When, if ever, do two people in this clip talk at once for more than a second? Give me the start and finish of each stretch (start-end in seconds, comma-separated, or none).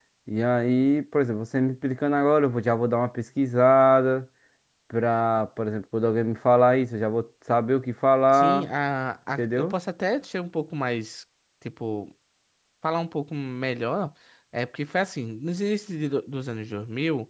none